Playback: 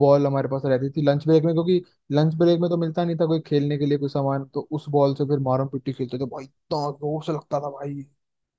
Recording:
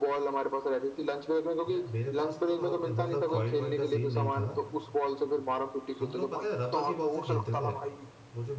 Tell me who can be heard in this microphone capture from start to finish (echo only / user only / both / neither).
both